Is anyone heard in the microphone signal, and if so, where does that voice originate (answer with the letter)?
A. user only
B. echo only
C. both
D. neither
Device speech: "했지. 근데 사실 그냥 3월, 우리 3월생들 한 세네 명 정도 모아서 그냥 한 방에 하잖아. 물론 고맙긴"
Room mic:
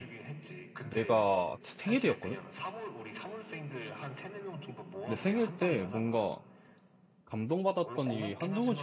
C